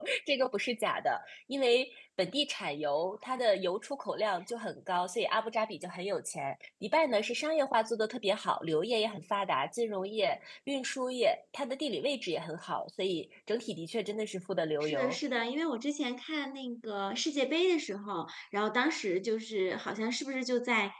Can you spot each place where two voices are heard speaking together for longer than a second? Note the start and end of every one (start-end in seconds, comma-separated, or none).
none